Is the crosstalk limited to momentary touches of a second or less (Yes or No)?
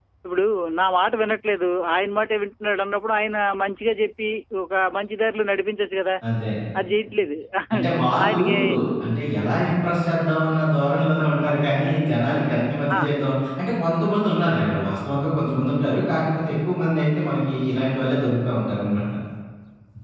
Yes